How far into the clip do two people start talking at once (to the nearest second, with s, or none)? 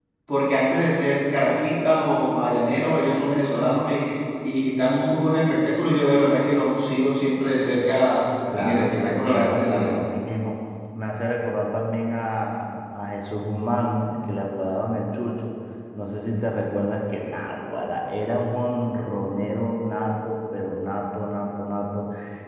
9 s